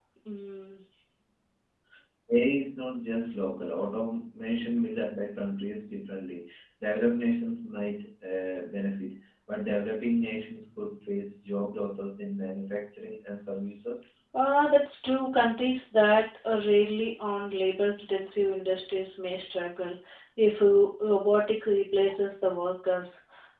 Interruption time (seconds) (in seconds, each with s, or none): none